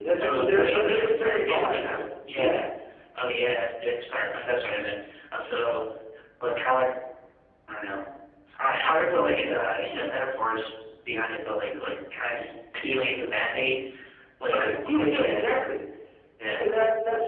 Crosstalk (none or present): present